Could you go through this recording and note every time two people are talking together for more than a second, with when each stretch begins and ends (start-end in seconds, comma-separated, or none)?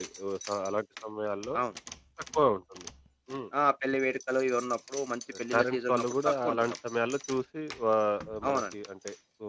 5.5-6.7